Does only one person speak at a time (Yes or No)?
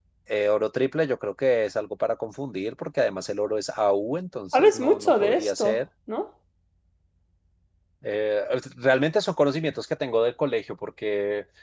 No